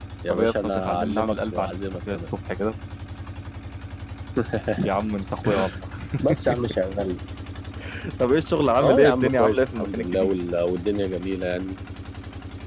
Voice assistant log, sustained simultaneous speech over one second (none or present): present